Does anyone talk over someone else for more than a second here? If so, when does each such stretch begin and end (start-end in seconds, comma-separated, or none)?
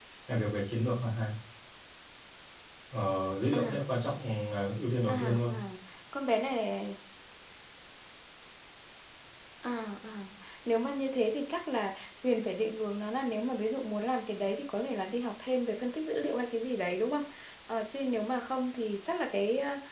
none